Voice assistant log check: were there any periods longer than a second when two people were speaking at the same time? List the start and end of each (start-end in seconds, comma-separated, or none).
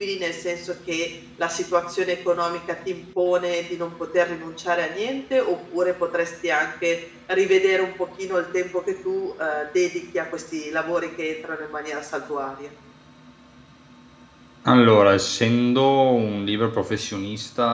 none